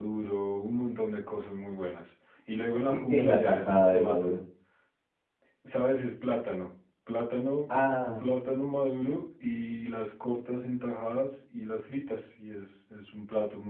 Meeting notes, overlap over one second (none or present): present